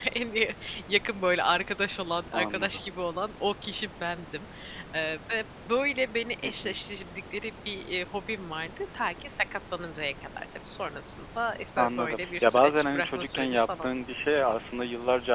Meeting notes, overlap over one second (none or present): present